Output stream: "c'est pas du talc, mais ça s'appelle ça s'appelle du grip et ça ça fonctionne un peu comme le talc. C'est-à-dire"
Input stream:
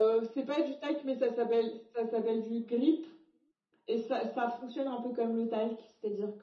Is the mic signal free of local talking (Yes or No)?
Yes